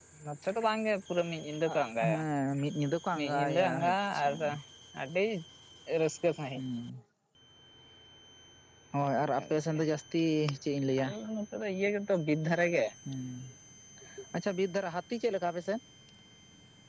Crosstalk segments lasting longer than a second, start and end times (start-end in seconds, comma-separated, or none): 3.1-4.5